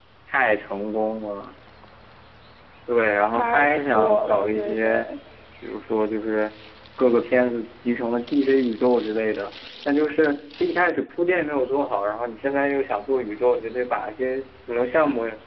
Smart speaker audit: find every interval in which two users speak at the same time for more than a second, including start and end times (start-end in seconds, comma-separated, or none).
3.3-5.0